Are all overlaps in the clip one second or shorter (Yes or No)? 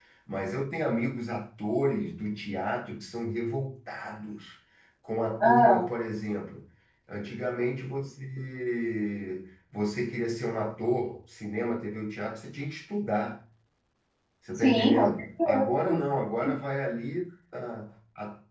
No